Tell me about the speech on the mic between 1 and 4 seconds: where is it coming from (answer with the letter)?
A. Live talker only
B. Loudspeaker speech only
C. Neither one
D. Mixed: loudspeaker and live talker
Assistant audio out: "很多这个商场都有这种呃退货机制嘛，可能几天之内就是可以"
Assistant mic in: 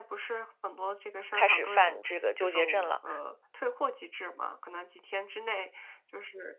D